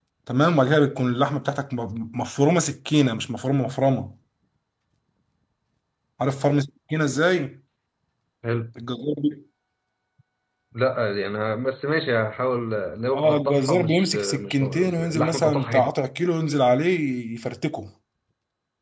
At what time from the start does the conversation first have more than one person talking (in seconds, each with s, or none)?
13.1 s